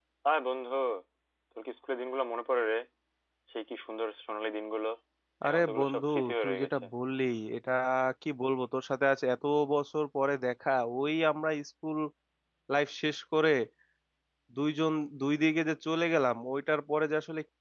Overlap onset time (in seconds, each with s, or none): 5.5 s